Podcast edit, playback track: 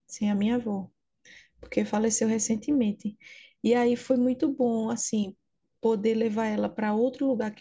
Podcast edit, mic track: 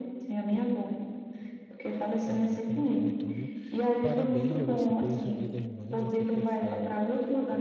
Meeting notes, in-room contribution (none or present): present